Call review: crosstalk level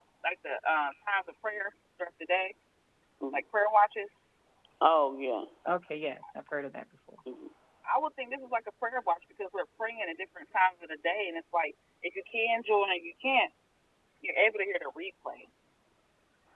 none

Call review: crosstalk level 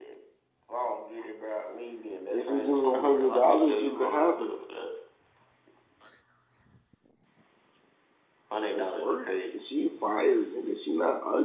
present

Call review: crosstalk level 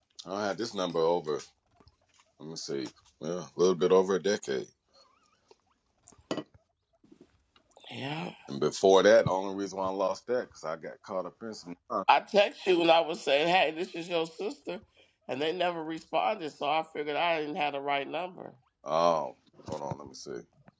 none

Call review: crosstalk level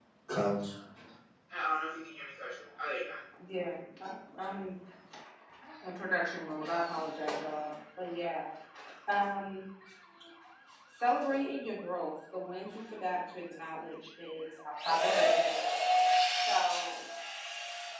none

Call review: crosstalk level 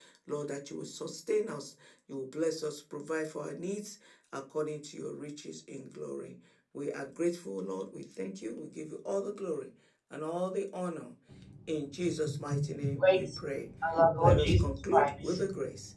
present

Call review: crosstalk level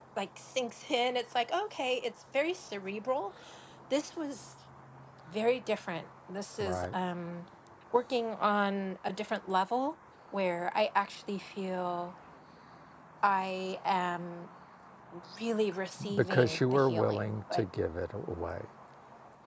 present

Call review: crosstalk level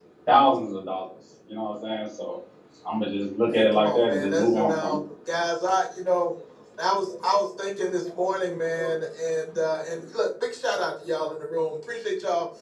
present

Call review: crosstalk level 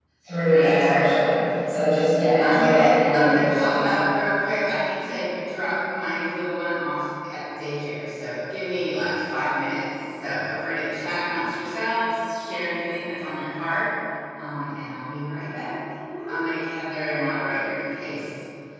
present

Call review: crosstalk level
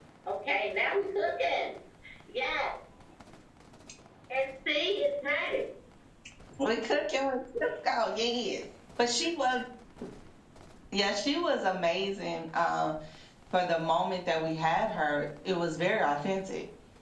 none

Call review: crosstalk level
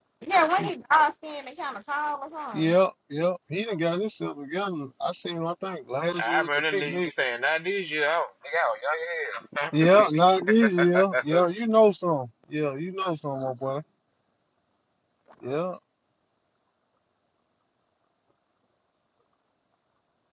present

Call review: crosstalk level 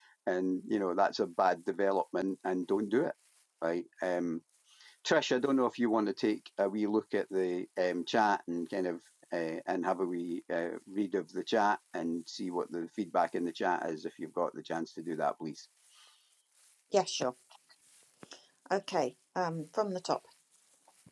none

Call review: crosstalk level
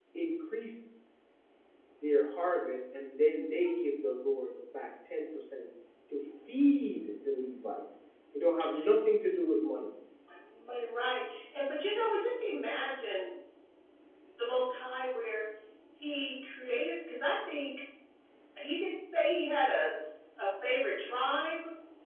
none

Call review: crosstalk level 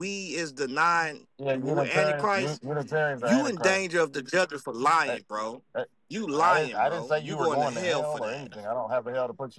present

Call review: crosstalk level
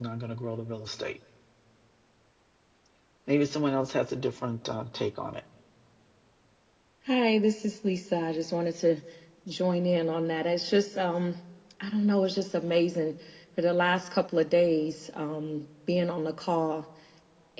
none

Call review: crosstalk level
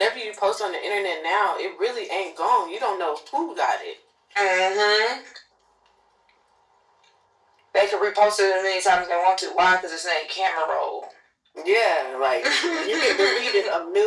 present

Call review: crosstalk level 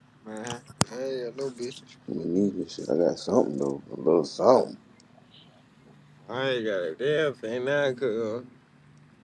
none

